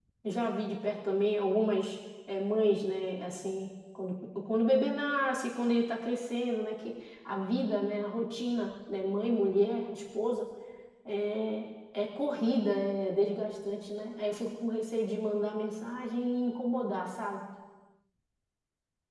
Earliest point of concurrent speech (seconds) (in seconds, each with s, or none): none